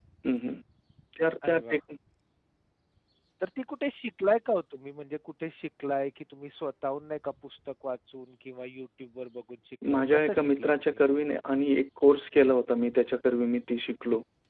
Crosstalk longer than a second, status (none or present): present